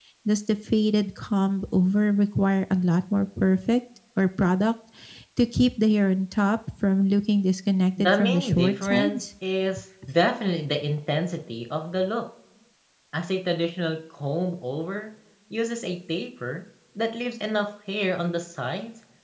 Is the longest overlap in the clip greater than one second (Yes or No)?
Yes